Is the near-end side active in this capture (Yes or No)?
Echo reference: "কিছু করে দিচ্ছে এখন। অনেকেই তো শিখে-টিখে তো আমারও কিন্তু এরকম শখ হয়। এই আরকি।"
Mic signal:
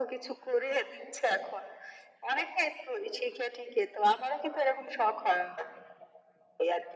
No